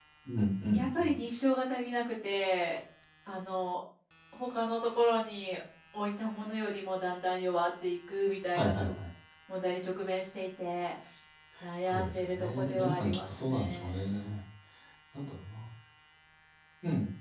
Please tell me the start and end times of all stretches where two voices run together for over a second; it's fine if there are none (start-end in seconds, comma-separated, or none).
11.8-14.0